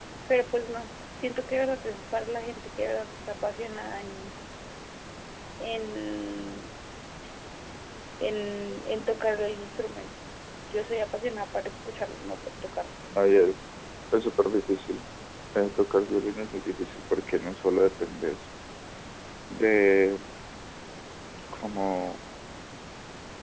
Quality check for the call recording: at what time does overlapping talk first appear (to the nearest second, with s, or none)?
none